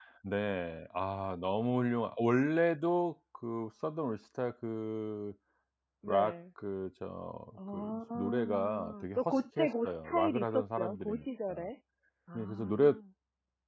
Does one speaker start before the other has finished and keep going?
Yes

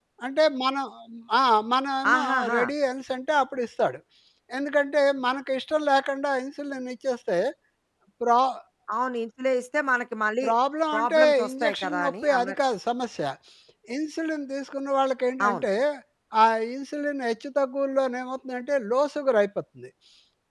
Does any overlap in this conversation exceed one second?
Yes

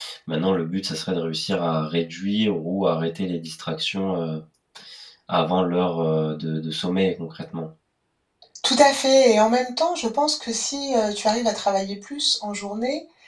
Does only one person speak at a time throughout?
Yes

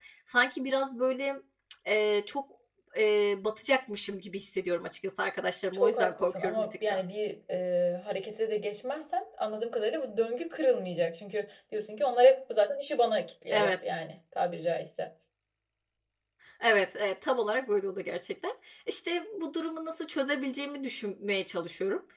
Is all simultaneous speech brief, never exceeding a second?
No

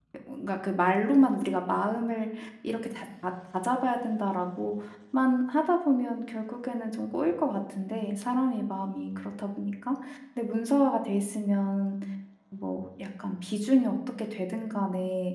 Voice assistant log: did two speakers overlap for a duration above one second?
No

